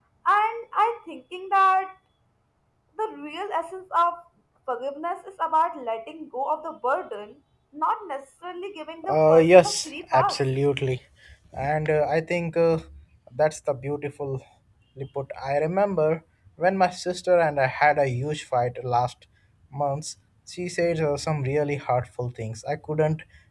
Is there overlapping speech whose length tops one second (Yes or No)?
Yes